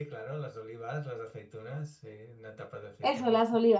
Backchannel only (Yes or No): No